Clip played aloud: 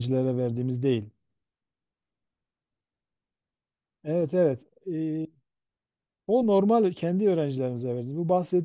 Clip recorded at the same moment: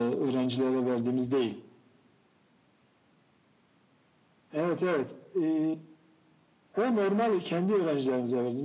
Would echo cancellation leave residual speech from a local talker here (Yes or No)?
No